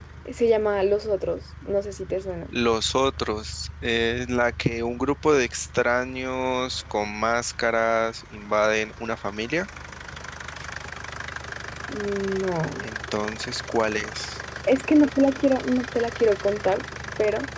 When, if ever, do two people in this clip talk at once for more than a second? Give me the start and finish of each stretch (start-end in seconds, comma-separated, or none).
none